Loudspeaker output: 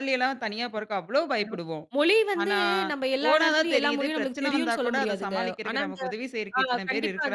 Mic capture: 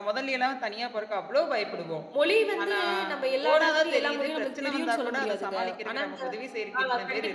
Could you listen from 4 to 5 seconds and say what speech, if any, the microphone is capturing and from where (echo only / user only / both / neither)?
echo only